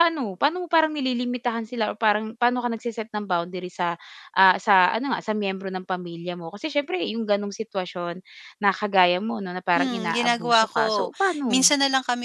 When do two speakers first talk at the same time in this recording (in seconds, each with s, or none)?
9.8 s